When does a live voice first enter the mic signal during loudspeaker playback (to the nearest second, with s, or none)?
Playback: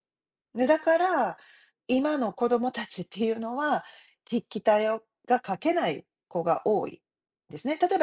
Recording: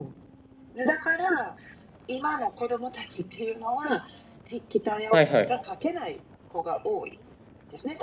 5 s